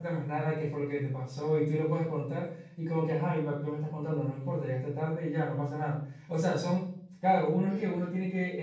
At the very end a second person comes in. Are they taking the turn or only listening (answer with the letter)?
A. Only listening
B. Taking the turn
A